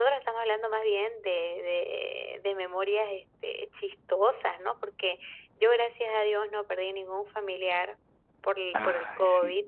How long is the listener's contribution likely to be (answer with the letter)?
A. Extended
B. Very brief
B